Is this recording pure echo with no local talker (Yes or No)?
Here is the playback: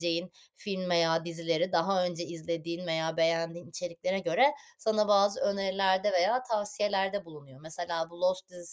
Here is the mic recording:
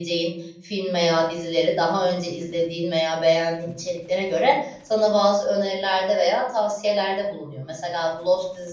Yes